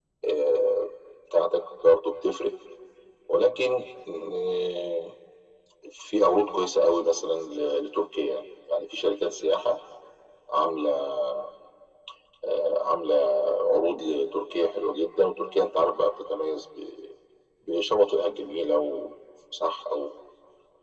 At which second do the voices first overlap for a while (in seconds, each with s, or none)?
none